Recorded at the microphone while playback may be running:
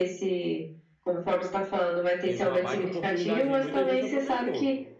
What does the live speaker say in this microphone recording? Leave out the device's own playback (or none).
Teve uma baita oportunidade aí, muita gente aproveitou.